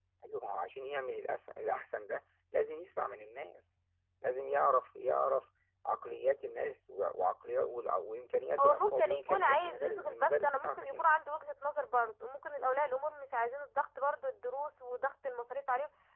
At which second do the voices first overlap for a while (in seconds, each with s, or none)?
8.6 s